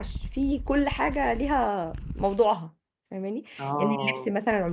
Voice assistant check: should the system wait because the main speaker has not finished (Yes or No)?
Yes